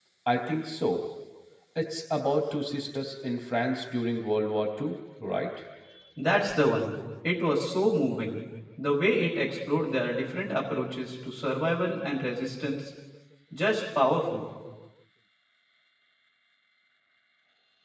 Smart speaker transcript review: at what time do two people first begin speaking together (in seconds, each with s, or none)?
none